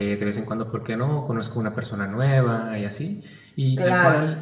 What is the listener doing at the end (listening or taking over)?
listening